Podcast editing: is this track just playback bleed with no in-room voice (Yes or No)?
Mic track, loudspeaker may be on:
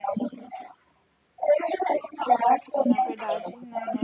No